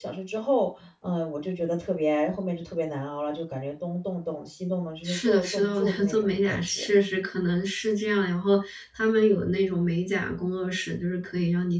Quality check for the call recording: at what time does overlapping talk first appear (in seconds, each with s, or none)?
5.0 s